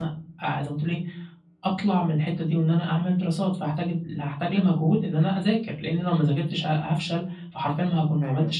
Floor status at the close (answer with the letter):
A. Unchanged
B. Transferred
A